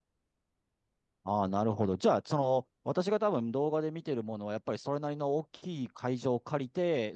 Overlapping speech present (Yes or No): No